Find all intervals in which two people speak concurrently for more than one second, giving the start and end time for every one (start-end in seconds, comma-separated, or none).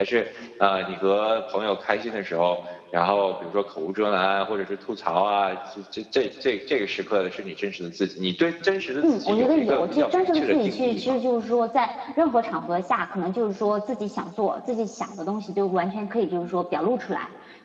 9.0-11.1